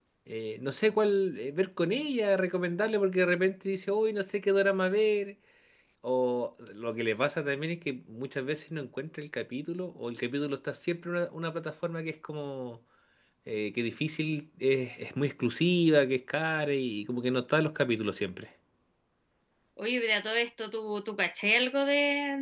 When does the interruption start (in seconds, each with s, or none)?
none